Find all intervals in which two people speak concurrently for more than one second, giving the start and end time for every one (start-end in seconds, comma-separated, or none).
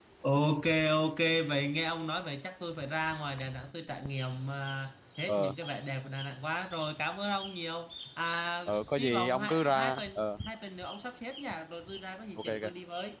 8.7-10.2